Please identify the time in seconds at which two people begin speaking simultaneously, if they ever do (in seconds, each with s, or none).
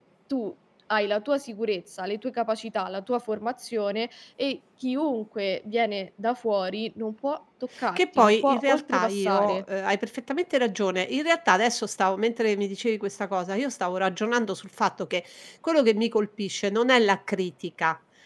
8.0 s